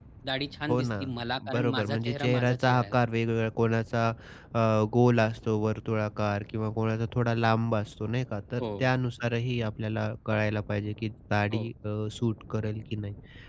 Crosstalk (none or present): present